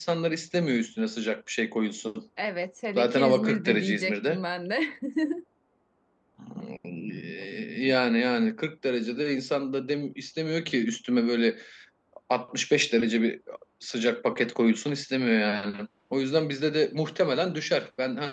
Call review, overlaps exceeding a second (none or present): present